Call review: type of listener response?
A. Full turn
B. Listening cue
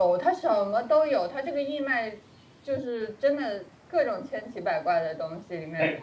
A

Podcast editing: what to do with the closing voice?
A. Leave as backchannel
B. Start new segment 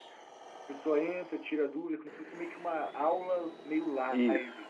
B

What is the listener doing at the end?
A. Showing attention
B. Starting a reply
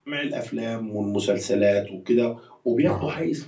A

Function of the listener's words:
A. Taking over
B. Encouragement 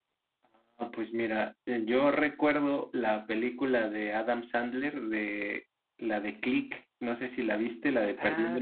A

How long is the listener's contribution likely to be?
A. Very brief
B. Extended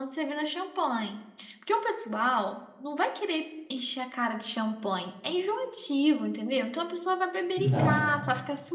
A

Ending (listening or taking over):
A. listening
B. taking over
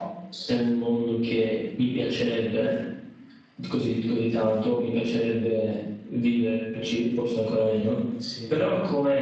A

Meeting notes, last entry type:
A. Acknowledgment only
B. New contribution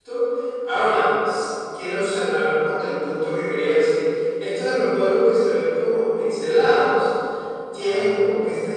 A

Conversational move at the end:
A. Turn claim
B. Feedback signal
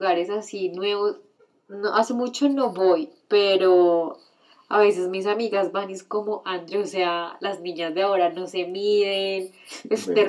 B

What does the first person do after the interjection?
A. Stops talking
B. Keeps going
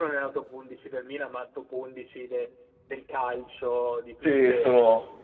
A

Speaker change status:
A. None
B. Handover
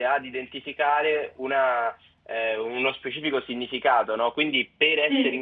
A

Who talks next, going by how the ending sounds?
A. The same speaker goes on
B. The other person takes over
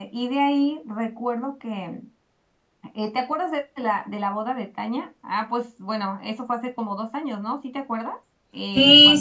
B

